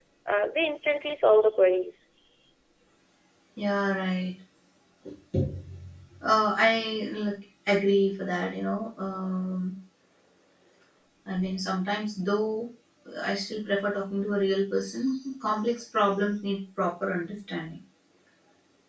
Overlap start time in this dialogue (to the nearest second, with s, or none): none